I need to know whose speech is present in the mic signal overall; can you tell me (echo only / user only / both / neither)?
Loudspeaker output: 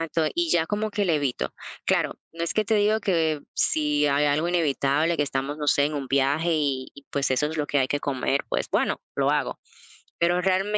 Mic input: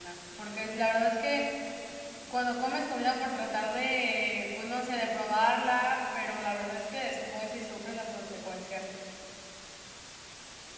user only